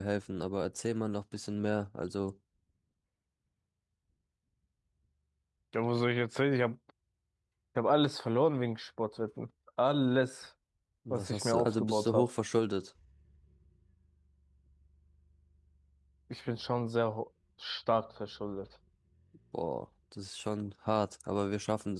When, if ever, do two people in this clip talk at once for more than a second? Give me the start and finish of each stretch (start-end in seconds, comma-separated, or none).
11.1-12.3